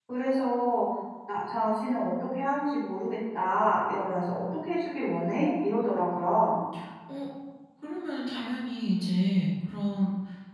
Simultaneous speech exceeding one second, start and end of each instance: none

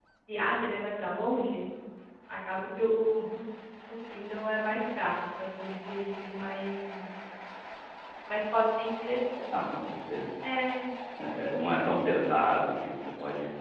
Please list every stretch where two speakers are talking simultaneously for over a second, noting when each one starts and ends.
none

